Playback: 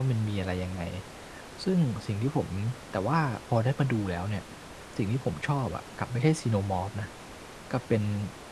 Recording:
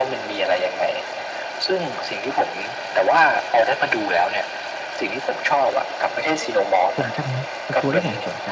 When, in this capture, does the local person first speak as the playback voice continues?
7.0 s

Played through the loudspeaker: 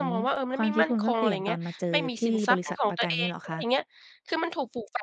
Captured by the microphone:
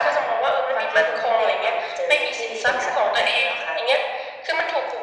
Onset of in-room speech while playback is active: none

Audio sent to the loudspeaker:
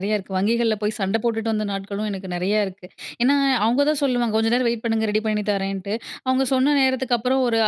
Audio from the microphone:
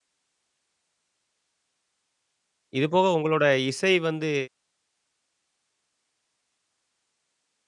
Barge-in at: 2.8 s

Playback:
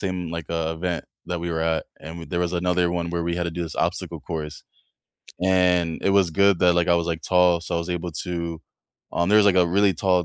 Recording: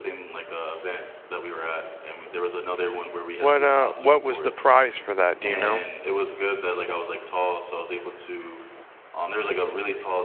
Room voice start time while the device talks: 3.4 s

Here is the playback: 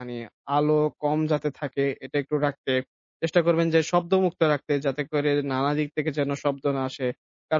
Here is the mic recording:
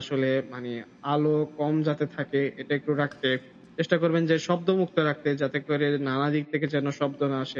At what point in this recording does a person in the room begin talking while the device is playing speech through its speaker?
none

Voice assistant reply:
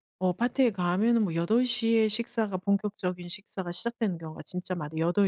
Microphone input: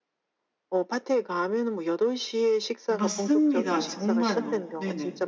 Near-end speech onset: 2.9 s

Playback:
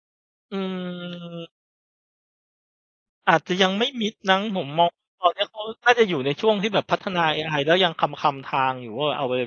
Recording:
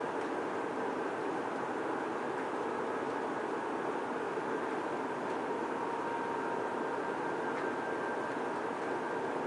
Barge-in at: none

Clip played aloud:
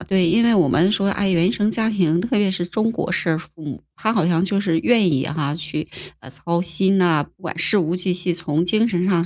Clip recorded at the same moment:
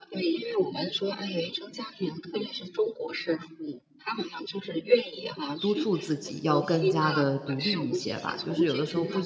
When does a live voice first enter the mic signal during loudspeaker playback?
5.6 s

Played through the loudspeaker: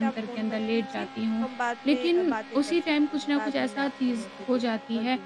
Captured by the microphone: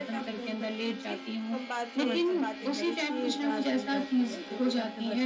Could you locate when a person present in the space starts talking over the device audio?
2.0 s

